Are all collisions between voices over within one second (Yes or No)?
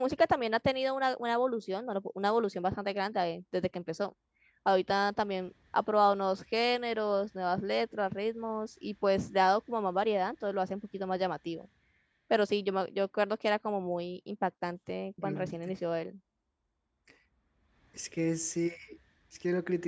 Yes